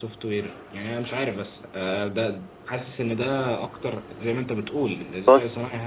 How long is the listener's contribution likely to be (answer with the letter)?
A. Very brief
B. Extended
A